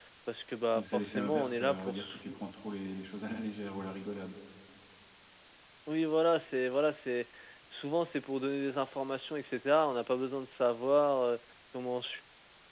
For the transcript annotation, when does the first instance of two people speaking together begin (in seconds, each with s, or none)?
0.8 s